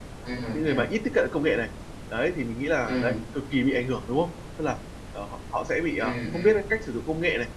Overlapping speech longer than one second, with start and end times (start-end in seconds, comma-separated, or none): none